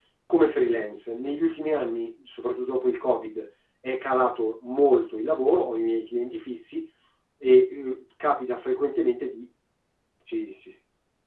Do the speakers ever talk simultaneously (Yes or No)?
No